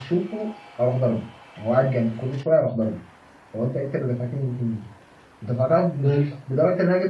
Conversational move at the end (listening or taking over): listening